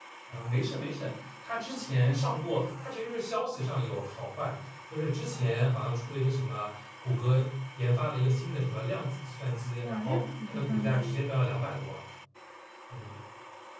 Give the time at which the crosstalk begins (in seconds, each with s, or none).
9.8 s